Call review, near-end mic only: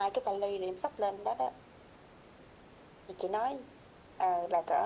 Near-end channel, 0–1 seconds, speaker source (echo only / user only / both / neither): echo only